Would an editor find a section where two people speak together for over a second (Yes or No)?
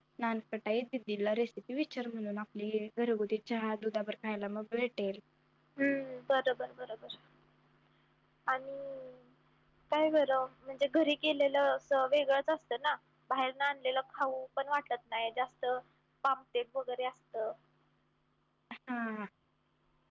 No